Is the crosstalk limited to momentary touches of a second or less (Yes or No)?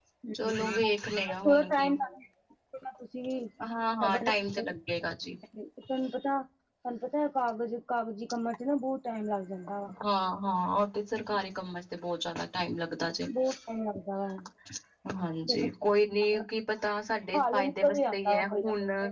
No